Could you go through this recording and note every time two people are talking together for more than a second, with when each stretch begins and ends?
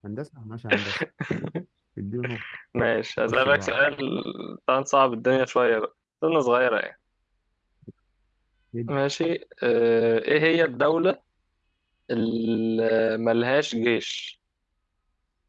none

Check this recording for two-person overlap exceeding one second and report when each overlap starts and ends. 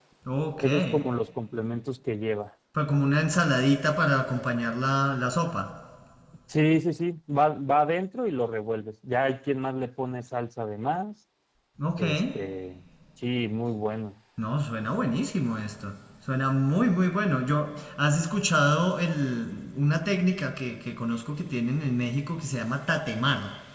none

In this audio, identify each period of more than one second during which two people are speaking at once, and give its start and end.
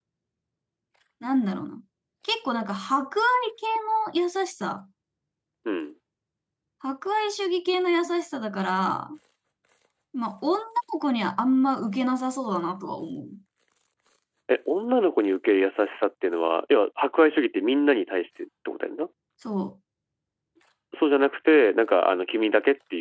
none

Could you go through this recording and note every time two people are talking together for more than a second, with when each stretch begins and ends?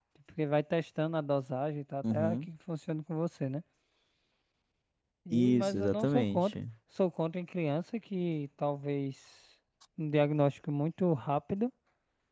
5.3-6.6

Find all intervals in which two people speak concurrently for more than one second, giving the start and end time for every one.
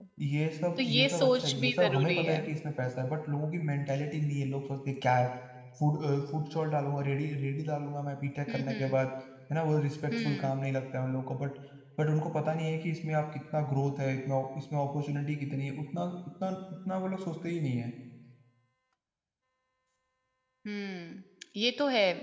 0.8-2.4

